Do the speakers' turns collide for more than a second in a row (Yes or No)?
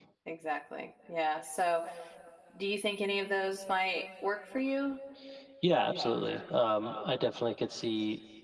No